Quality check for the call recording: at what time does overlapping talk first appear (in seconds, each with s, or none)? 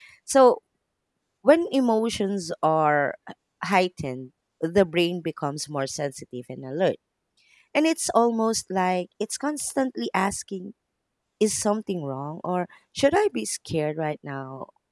none